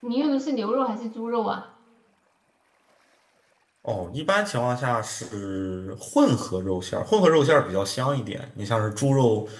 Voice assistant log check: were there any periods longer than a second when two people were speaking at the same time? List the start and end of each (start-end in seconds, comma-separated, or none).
none